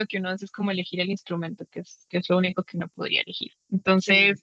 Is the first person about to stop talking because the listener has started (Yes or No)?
No